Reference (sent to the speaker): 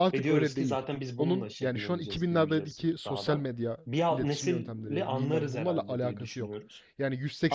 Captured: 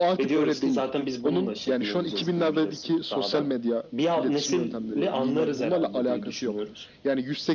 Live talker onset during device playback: none

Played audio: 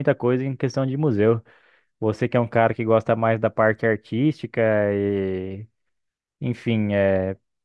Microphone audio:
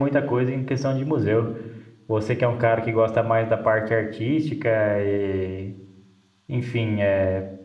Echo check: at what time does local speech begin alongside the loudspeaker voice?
none

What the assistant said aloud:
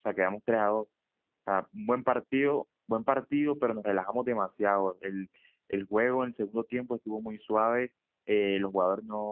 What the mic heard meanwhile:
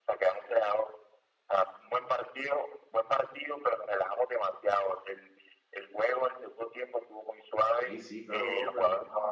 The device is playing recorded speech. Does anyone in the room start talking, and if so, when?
7.8 s

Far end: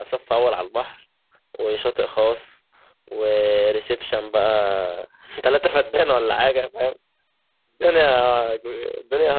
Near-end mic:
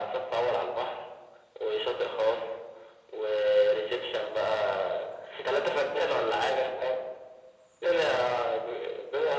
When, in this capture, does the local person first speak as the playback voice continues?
none

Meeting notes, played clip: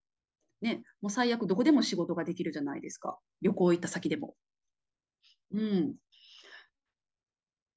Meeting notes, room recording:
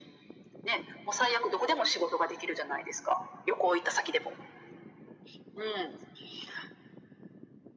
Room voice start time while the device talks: none

